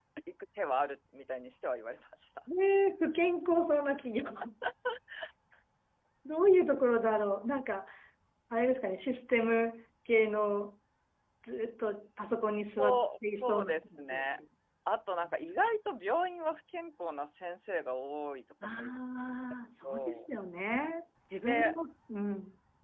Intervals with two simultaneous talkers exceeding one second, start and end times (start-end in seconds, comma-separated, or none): 12.8-14.4